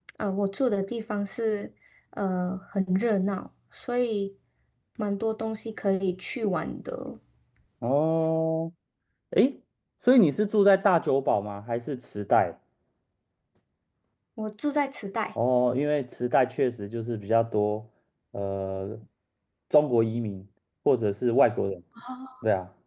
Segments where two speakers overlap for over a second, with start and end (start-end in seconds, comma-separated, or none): none